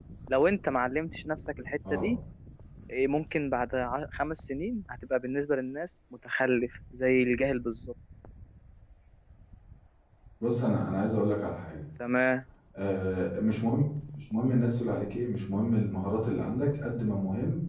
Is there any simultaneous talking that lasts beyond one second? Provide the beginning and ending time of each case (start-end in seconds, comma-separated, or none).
none